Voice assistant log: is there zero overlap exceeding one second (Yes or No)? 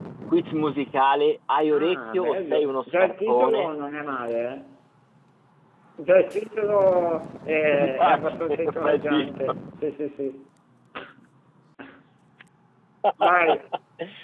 No